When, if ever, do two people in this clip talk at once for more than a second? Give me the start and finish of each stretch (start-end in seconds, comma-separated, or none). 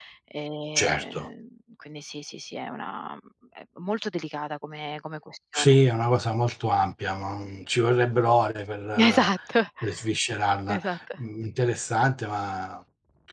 none